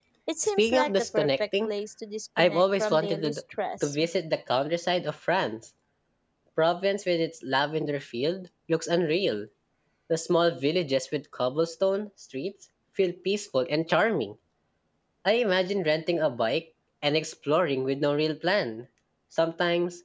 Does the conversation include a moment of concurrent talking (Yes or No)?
Yes